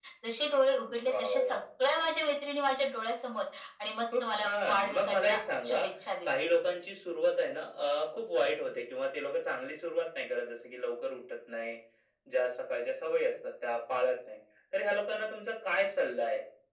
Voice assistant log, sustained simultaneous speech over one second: present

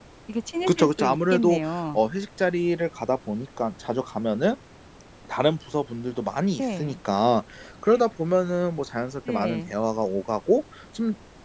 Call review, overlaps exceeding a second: present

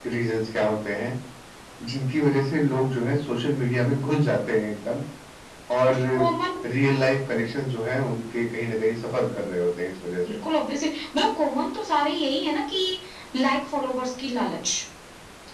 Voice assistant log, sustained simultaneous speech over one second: none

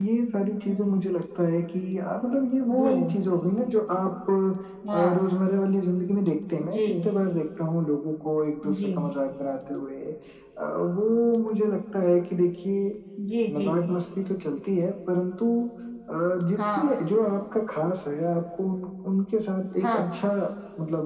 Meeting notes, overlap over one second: none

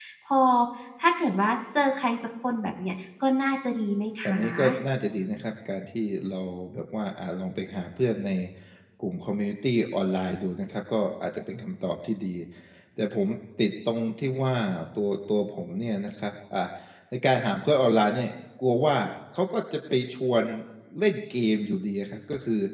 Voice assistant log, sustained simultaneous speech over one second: none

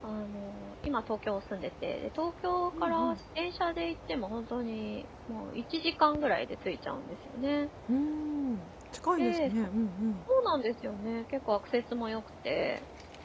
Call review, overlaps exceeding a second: none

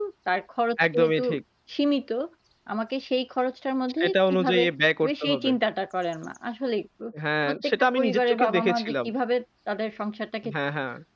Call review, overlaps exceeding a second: present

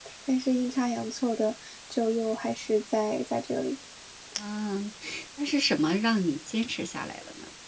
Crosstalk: none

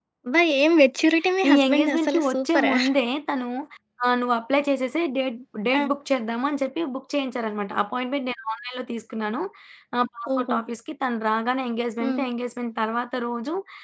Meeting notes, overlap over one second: present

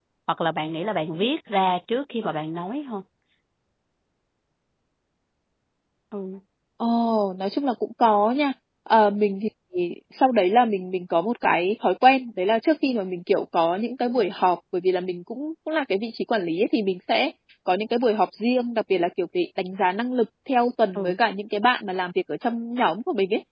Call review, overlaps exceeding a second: none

